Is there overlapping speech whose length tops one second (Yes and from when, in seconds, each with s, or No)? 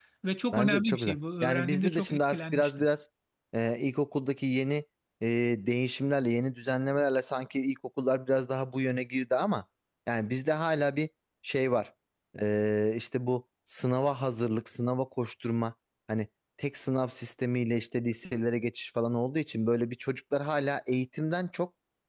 Yes, from 0.5 s